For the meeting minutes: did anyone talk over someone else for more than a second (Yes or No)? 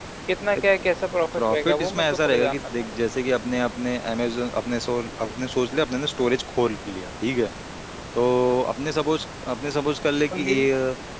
Yes